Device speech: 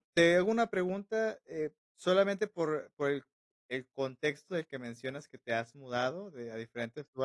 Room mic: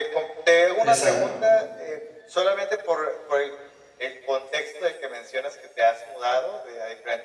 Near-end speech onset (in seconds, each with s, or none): 0.8 s